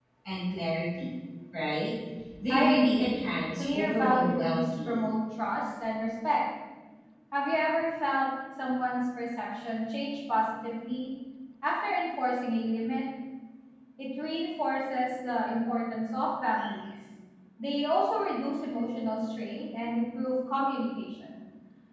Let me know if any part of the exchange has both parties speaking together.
Yes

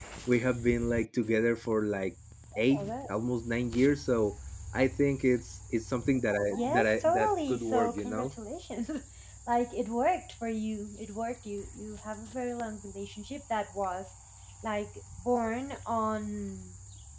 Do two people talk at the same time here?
Yes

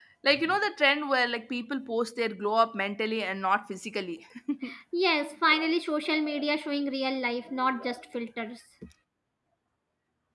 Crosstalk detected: No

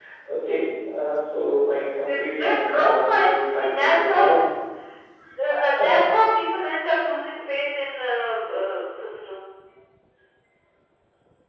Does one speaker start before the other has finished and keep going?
Yes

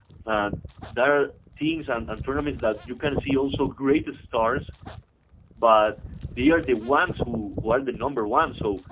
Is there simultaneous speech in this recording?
No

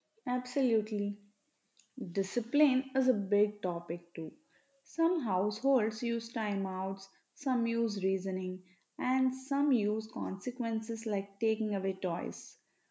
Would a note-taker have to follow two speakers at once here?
No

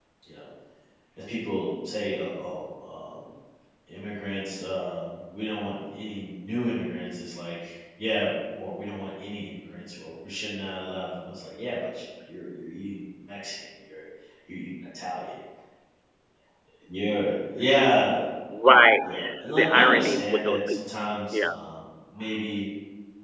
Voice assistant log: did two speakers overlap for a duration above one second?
Yes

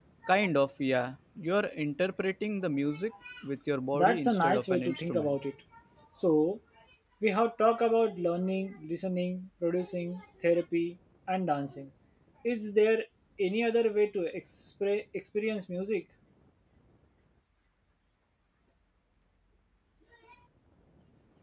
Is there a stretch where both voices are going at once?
Yes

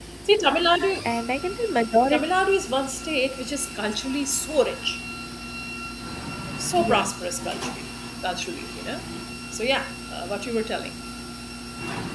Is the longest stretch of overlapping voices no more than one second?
Yes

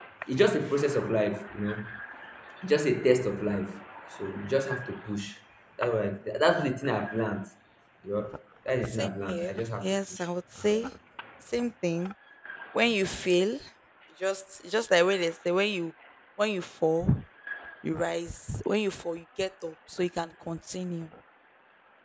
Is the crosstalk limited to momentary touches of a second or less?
No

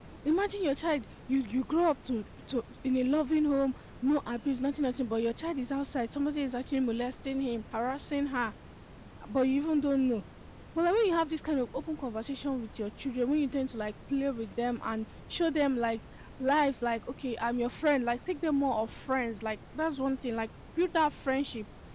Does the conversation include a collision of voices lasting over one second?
No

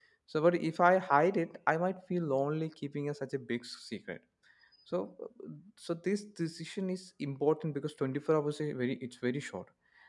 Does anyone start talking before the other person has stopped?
No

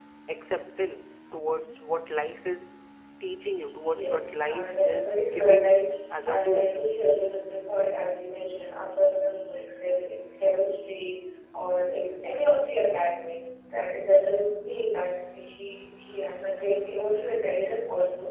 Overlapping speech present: Yes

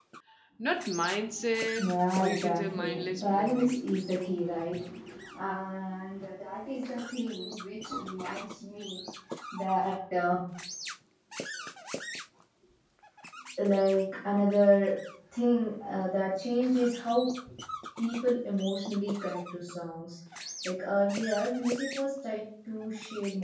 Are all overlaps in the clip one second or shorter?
No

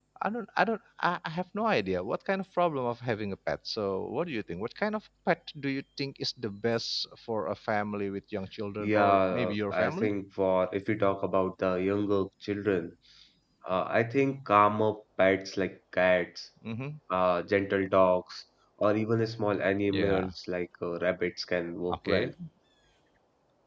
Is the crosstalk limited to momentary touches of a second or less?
No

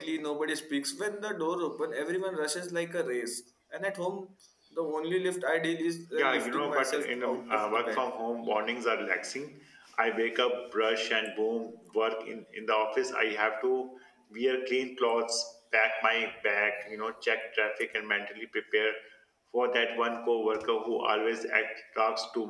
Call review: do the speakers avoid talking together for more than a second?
No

